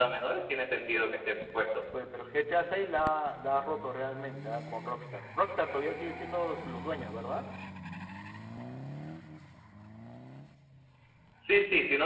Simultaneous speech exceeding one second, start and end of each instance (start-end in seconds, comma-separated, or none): none